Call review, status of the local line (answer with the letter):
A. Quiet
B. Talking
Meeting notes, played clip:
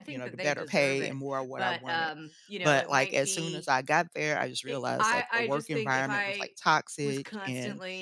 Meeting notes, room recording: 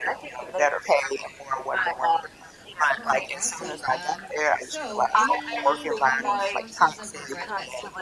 B